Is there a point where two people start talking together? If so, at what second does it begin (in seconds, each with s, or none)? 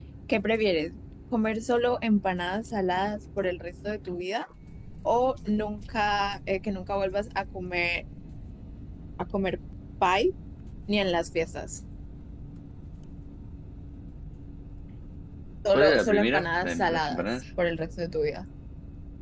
15.7 s